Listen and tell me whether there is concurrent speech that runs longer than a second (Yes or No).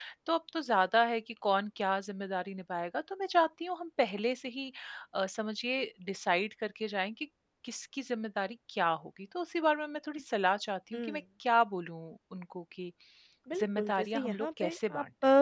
Yes